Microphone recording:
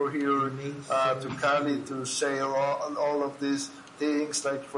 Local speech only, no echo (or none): it makes sense too.